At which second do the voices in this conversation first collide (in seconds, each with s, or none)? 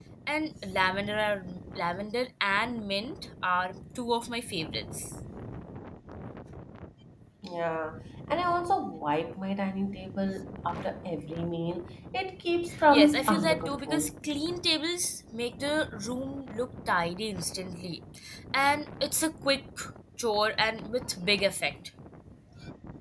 12.9 s